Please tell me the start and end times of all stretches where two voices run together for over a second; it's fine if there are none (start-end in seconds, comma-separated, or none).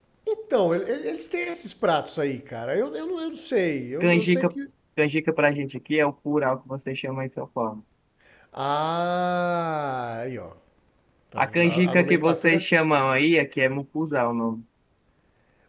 11.4-12.7